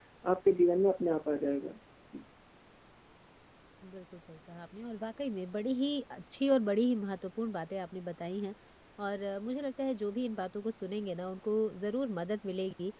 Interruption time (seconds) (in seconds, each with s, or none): none